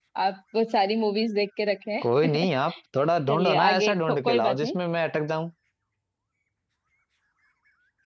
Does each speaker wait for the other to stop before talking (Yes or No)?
No